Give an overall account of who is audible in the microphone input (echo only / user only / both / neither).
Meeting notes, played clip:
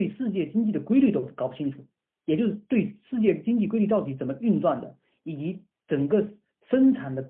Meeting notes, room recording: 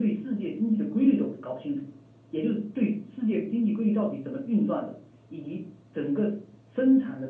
echo only